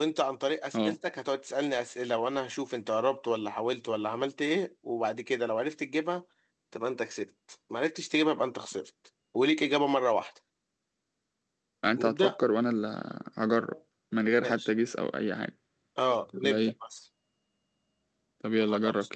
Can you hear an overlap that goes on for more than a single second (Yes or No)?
No